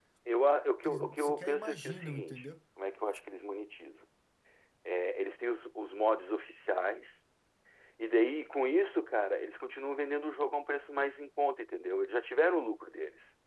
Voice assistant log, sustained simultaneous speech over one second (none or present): present